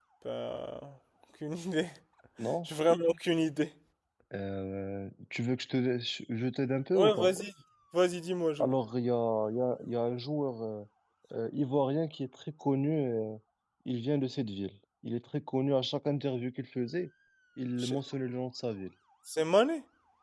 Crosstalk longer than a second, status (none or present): none